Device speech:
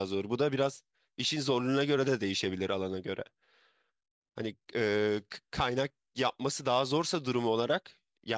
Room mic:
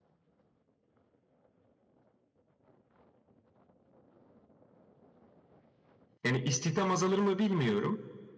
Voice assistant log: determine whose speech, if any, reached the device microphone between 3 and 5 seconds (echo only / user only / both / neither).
neither